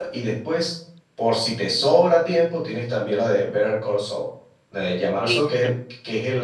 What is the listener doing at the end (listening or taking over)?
listening